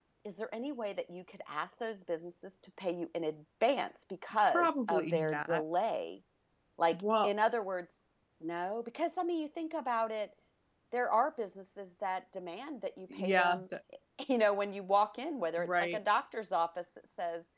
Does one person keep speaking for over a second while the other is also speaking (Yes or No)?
Yes